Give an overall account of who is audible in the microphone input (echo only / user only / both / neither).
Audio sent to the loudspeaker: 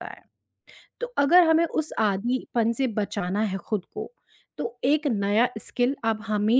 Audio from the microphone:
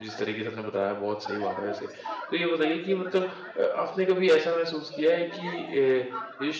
both